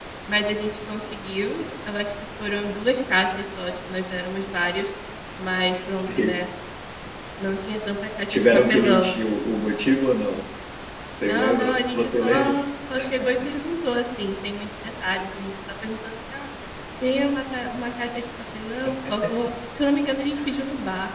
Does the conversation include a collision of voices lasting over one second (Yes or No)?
Yes